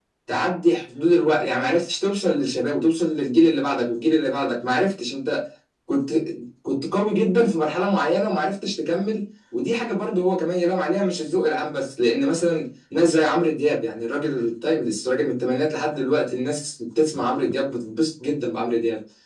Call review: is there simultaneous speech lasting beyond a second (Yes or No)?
No